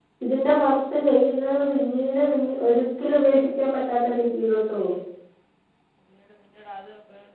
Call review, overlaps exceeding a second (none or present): none